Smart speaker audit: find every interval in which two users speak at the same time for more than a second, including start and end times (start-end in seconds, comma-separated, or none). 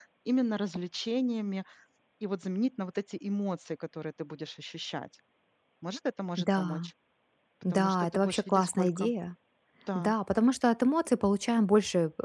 7.7-9.1